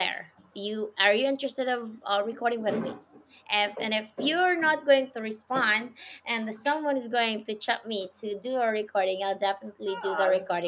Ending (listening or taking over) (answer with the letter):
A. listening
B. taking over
B